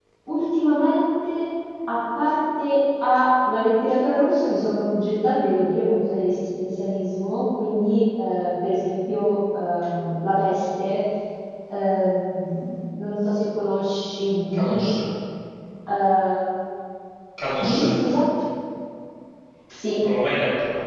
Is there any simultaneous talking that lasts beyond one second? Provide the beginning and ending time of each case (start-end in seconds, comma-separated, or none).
none